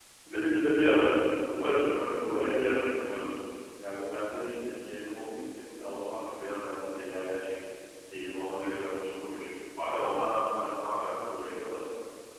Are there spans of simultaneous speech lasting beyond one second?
Yes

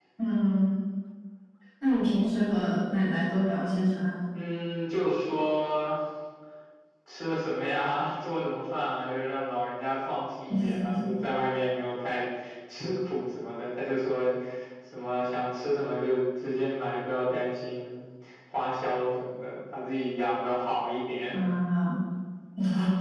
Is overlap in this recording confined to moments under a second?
Yes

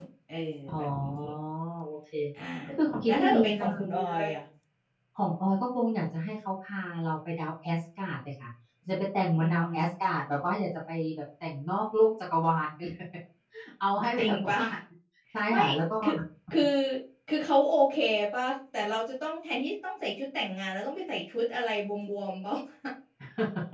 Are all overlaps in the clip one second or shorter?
No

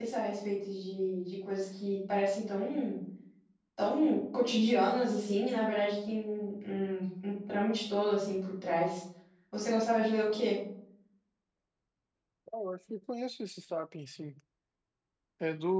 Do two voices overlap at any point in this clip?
No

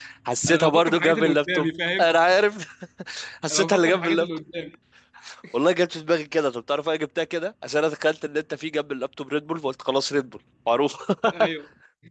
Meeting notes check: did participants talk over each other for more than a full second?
Yes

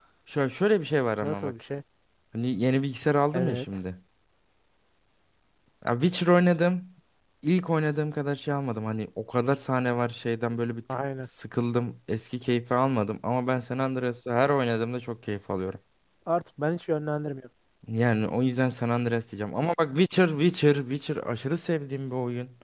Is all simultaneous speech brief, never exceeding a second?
Yes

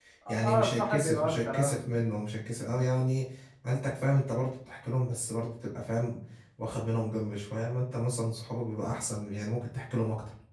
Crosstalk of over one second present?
Yes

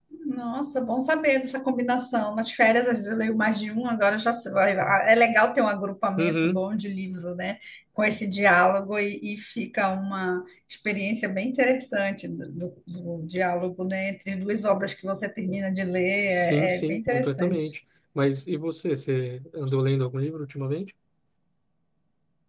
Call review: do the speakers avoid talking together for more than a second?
No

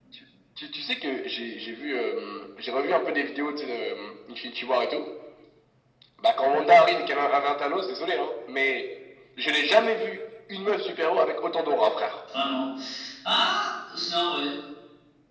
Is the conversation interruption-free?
Yes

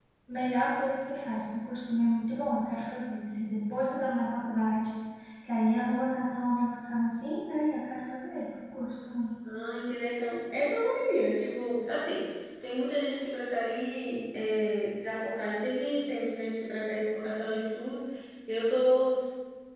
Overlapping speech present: No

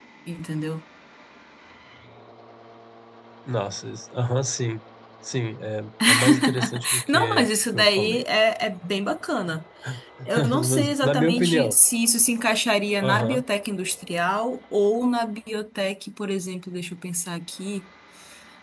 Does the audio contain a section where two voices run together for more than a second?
Yes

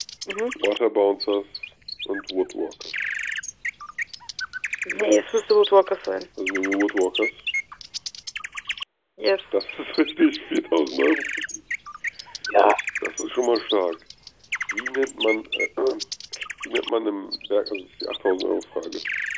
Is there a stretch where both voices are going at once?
No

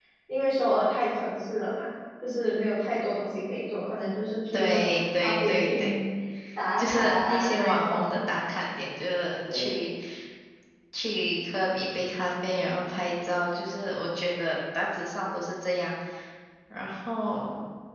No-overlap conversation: No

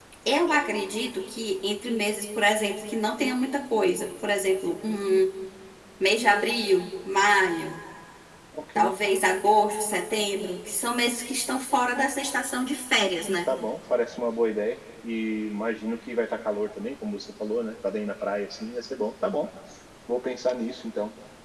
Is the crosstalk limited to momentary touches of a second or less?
Yes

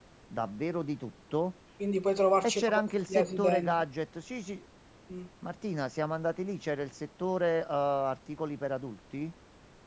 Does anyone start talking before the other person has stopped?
Yes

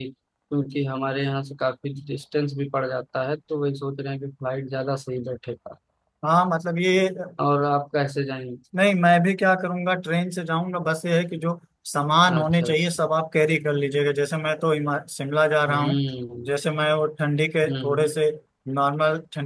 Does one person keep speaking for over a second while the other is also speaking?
No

